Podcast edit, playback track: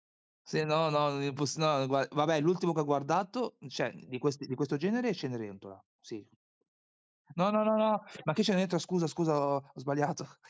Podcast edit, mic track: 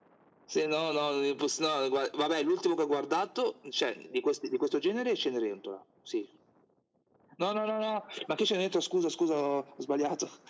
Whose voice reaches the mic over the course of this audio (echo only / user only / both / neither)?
echo only